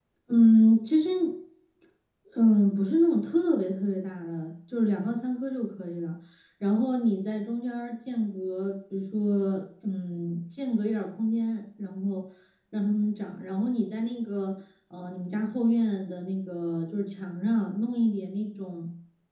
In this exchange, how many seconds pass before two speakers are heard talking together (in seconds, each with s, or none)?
none